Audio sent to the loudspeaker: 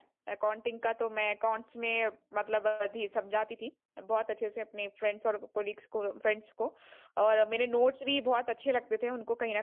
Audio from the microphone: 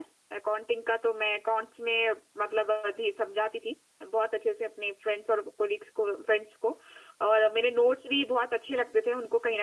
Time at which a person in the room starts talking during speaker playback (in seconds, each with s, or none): none